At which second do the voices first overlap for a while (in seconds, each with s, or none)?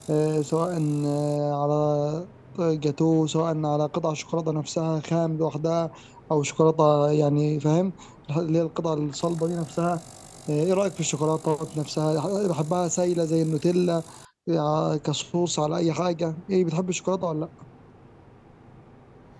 none